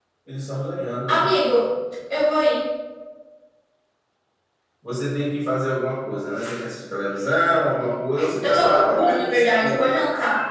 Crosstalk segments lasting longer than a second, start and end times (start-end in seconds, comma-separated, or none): 8.4-9.9